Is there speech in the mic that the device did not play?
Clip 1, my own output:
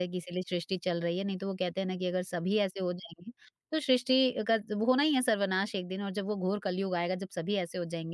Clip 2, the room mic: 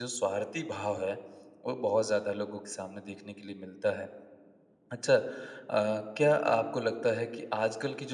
Yes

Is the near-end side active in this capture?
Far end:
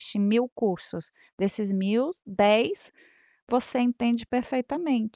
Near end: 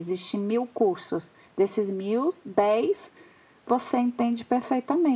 No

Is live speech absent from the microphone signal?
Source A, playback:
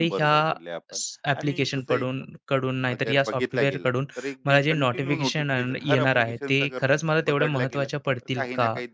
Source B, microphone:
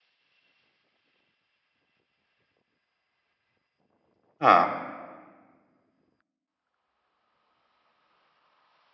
No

